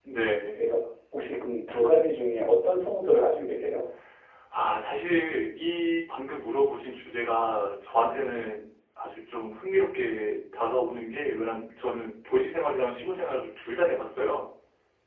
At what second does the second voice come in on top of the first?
none

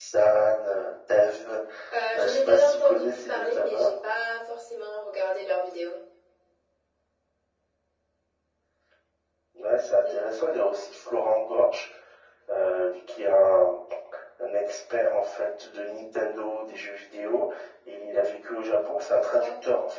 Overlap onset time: 2 s

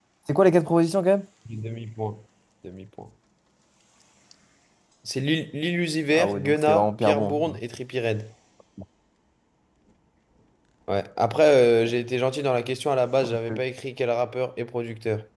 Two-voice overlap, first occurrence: 6 s

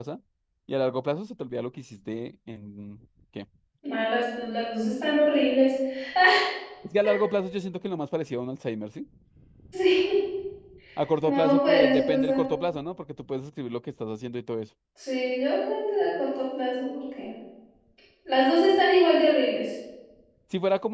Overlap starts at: 11 s

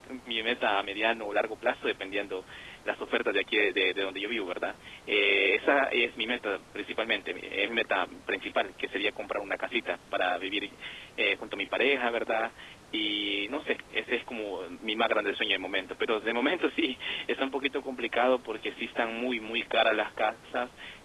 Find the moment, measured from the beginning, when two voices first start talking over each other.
none

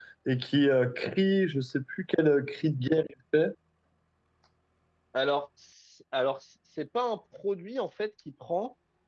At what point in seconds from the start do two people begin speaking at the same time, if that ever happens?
none

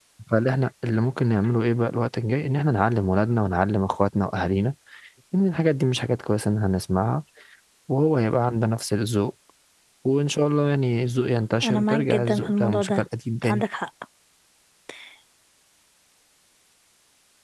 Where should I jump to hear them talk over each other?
12 s

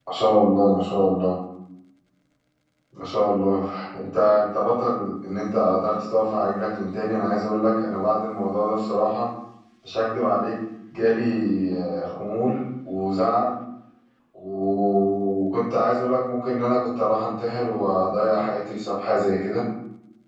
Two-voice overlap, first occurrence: none

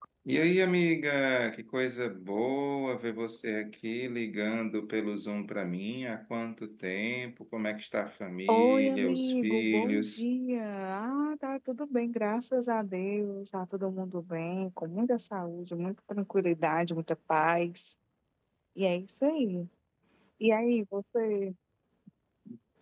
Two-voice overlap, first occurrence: 8 s

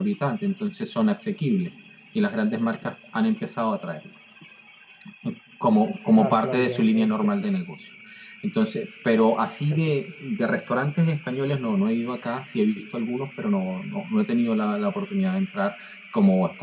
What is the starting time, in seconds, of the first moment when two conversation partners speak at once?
6 s

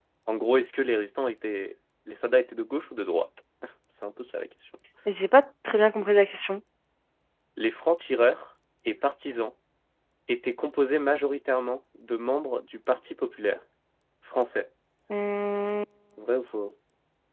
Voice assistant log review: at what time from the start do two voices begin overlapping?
none

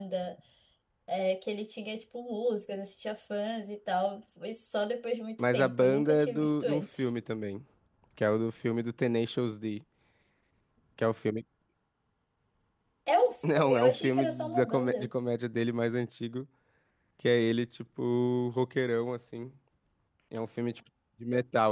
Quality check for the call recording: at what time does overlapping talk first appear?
5 s

